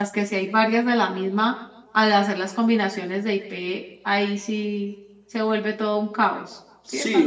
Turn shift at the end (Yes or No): Yes